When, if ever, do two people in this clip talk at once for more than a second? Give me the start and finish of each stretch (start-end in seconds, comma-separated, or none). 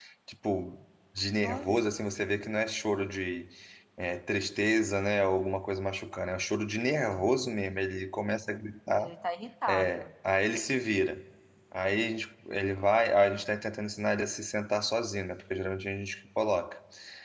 none